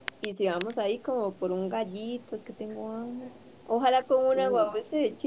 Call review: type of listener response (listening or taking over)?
listening